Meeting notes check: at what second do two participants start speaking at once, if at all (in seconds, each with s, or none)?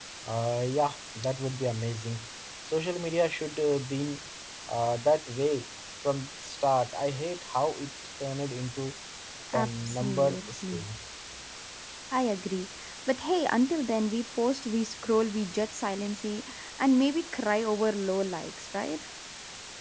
9.5 s